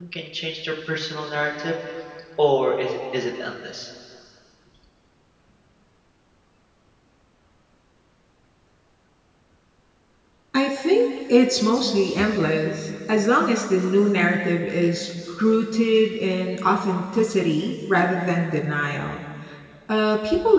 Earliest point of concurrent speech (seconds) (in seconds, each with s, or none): none